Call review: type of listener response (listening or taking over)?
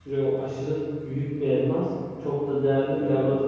listening